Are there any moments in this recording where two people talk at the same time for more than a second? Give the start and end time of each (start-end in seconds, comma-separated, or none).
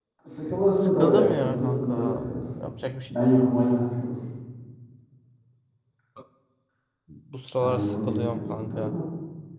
0.8-2.7, 7.6-9.0